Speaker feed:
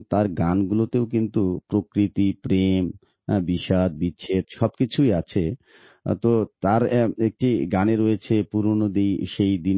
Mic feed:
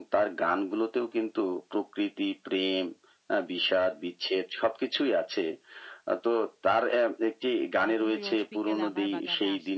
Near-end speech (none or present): present